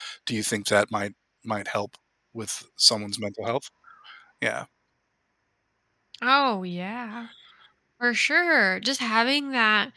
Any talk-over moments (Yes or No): No